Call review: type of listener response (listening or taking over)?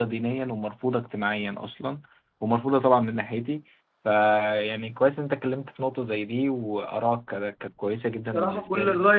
taking over